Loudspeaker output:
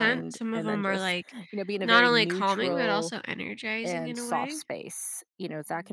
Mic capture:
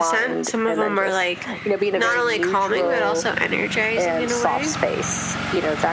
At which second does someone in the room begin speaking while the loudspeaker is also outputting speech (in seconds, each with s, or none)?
none